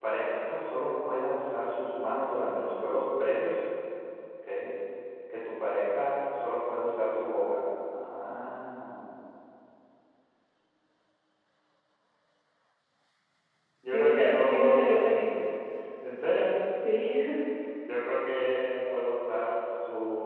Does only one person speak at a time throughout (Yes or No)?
No